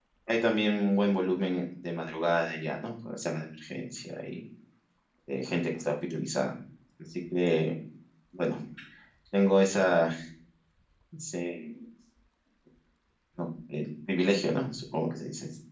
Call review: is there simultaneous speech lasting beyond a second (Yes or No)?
No